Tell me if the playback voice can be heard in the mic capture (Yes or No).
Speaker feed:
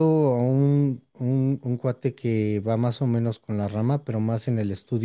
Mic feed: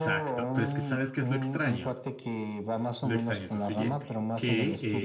Yes